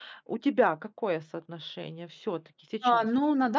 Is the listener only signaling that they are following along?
No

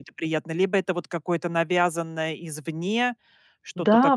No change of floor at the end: No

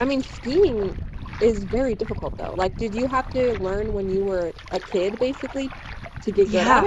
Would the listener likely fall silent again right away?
No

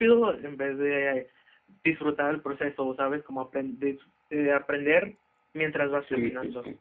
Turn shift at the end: Yes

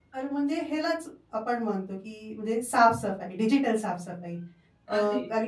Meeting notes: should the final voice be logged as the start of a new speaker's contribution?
No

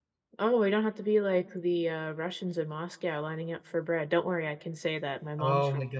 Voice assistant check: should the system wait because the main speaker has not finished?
No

